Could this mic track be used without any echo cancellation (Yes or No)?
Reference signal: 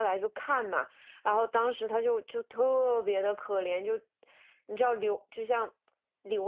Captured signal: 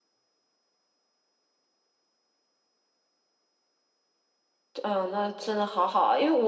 Yes